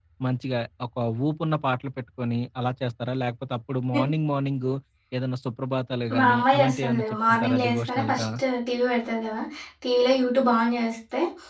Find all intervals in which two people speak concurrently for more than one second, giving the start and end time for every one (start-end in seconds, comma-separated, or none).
6.2-8.2